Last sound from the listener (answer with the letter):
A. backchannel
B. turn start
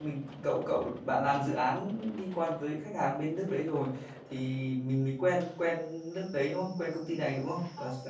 B